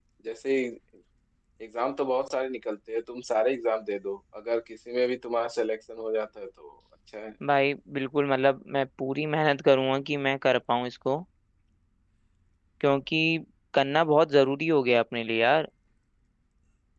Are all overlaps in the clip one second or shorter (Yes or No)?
Yes